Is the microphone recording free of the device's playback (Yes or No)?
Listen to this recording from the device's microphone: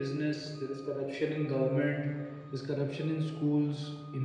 No